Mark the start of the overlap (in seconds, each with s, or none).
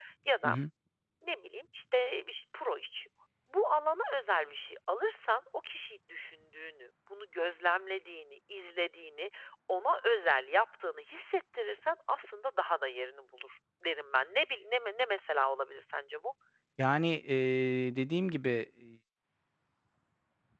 none